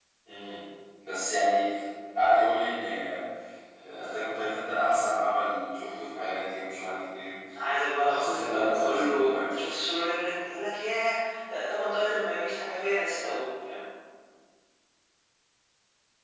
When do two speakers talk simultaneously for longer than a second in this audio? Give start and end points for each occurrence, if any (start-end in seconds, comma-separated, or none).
8.0-9.6